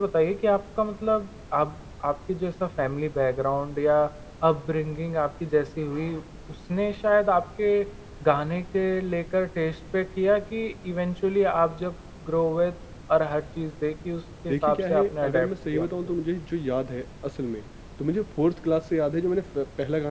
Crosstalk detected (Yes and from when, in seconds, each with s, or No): Yes, from 14.5 s